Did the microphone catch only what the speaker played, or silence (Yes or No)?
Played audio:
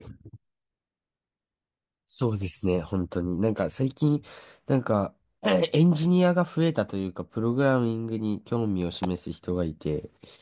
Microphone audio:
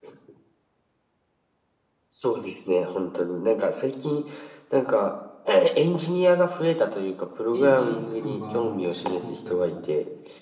No